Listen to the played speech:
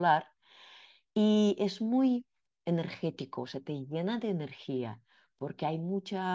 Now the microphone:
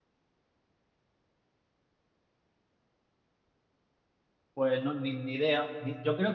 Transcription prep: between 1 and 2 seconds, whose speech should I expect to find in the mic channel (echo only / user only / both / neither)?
neither